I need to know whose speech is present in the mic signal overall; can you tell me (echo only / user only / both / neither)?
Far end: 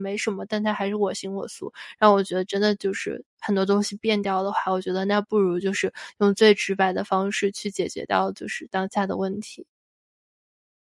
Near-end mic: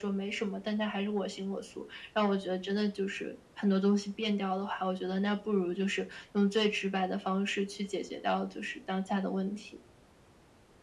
echo only